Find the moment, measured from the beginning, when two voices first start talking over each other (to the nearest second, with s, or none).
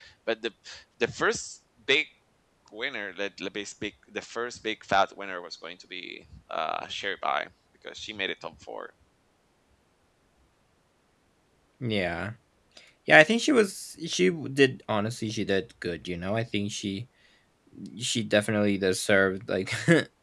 none